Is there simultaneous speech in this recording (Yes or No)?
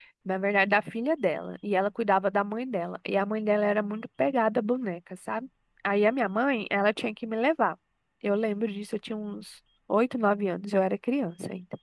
No